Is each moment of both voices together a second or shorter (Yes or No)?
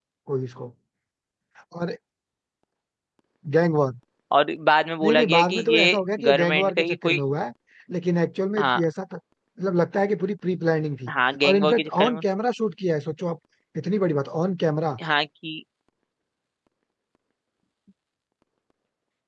No